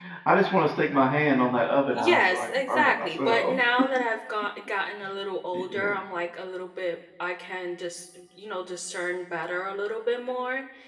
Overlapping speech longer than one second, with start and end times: 1.9-3.6

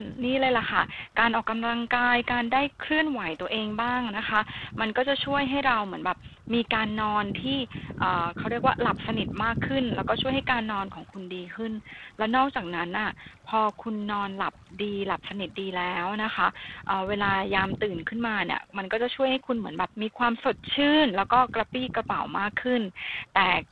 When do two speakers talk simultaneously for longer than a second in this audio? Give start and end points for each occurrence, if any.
none

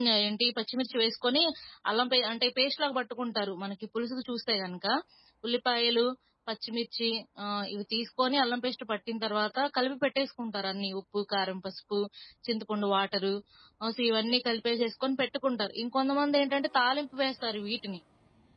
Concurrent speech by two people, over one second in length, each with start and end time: none

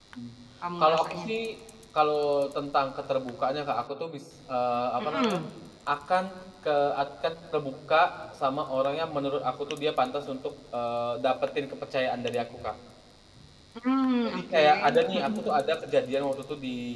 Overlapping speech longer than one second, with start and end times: 14.2-15.5

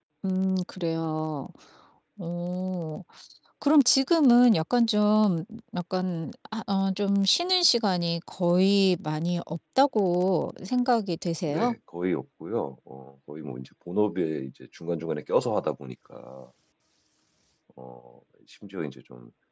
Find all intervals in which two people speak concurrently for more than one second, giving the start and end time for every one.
none

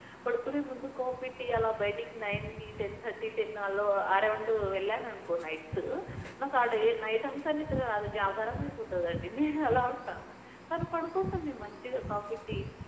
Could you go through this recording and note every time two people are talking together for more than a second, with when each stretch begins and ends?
none

